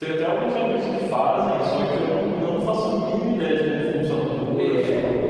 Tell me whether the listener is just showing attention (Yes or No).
No